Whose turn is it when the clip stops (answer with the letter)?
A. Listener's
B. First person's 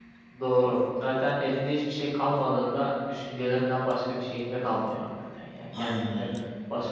B